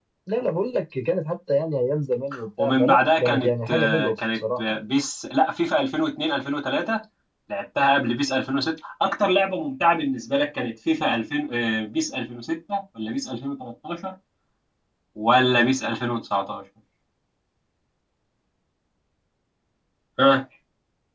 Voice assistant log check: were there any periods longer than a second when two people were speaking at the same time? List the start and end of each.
2.6-4.8

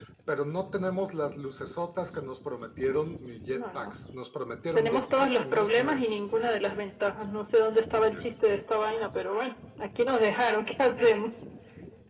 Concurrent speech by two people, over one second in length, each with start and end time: 4.8-6.2

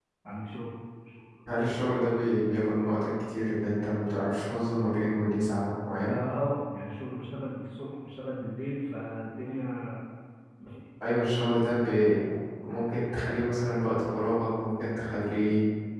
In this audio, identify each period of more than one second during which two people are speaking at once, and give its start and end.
none

